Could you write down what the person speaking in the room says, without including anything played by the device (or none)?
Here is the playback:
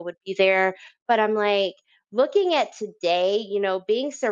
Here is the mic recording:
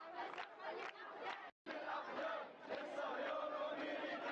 none